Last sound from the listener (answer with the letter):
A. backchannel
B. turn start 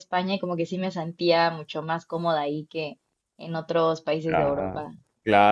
B